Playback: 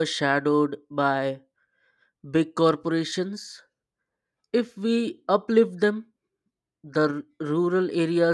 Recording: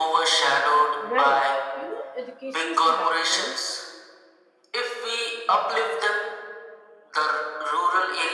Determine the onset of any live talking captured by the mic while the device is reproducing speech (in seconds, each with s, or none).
1.0 s